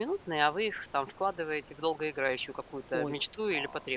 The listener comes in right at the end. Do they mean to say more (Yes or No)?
Yes